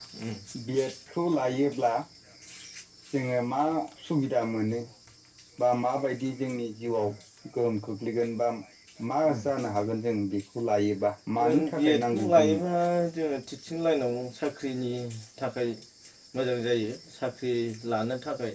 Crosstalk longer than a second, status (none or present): present